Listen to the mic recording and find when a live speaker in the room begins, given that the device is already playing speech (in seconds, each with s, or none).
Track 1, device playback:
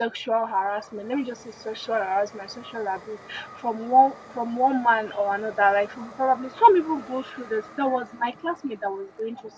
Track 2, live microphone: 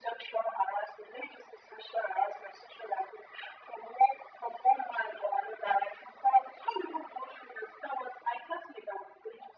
none